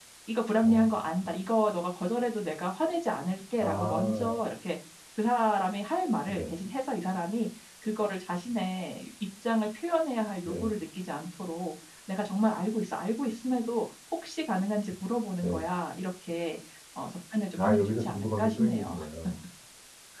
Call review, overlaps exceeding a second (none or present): present